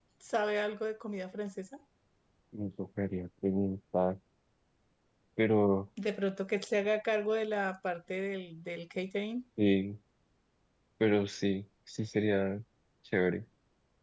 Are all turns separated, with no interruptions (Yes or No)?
Yes